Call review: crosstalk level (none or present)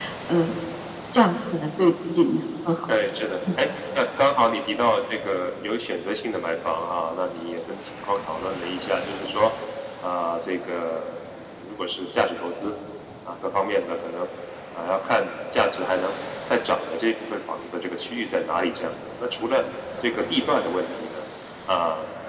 none